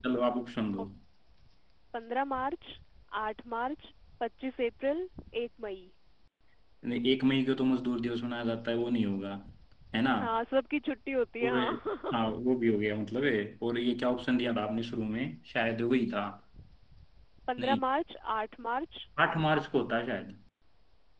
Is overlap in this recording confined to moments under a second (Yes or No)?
Yes